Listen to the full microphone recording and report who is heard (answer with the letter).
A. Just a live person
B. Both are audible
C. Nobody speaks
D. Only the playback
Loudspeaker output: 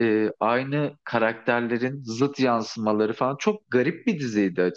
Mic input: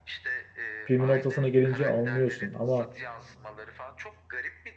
B